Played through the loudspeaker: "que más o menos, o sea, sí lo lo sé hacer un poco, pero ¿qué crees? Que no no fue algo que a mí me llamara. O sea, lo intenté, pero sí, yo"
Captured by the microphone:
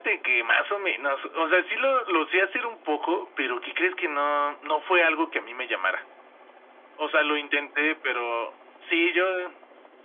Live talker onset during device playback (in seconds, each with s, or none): none